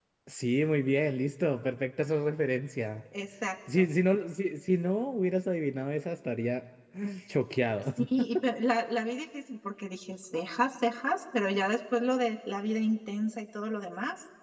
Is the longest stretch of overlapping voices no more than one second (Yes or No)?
Yes